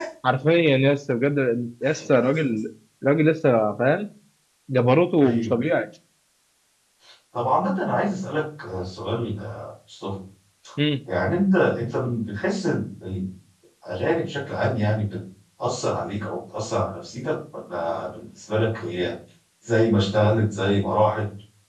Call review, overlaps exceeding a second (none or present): none